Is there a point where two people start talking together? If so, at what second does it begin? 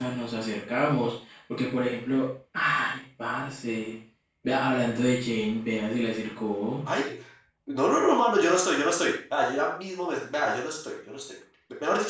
none

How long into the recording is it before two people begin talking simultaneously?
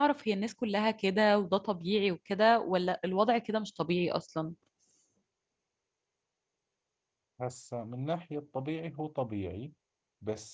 none

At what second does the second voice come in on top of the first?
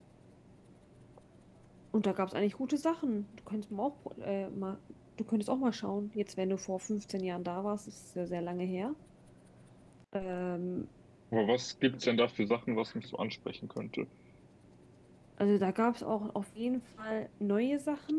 none

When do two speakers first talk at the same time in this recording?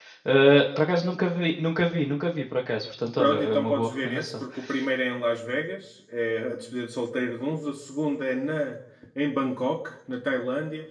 3.2 s

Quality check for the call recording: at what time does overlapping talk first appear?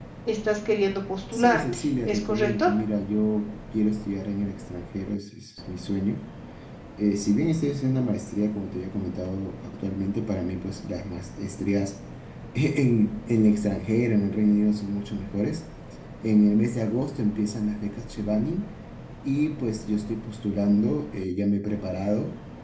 1.3 s

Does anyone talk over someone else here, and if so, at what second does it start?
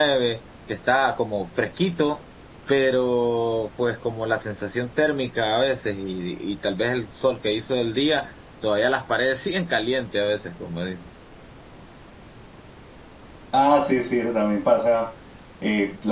none

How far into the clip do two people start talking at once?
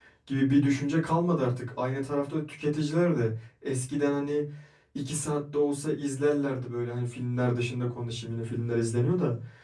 none

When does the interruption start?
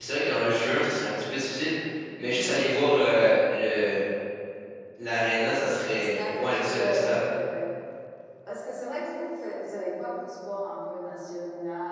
5.9 s

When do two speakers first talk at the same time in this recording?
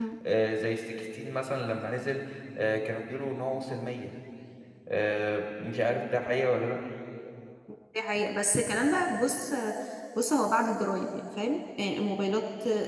none

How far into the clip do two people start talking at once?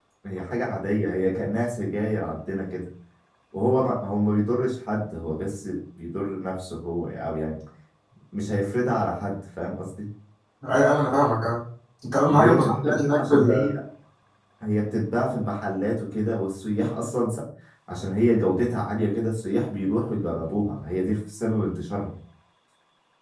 12.3 s

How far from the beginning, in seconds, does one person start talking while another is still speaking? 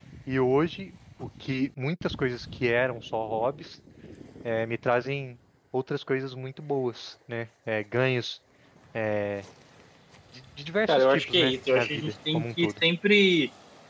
10.9 s

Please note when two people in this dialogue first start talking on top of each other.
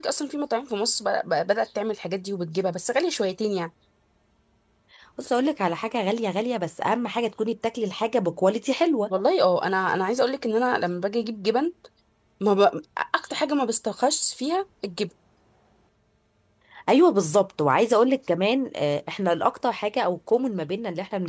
none

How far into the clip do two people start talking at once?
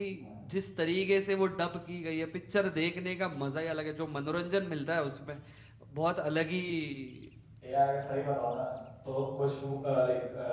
none

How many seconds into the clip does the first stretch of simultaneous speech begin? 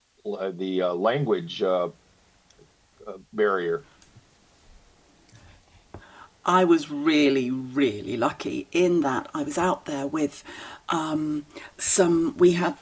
none

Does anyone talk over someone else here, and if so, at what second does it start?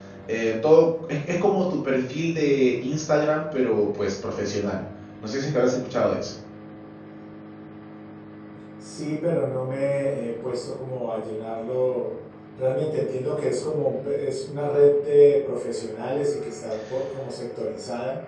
none

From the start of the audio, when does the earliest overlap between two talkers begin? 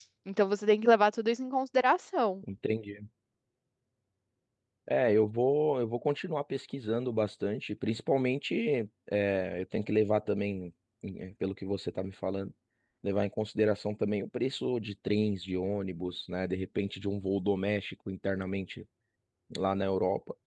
none

